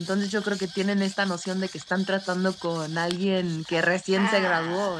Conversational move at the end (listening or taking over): taking over